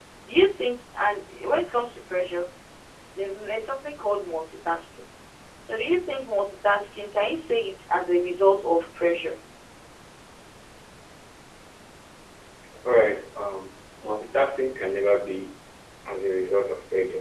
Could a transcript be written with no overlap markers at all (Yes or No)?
Yes